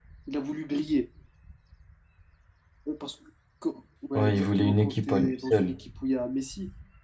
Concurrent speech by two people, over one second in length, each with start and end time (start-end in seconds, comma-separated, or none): 4.2-5.8